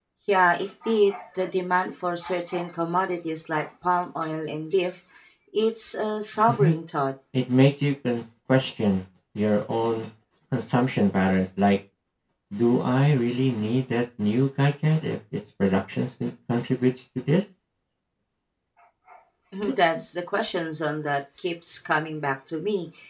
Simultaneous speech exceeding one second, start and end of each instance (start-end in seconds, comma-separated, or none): none